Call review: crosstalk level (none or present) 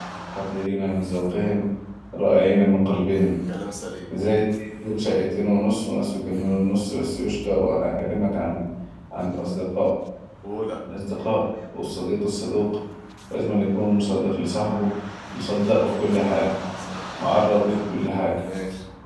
none